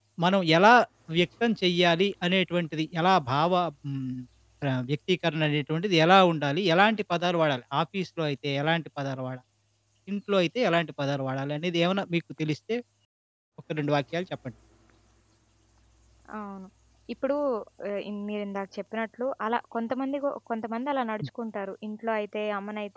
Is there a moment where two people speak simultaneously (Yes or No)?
No